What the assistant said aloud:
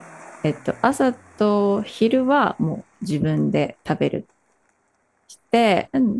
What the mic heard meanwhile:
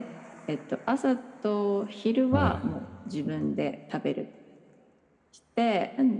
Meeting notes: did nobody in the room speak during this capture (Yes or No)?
No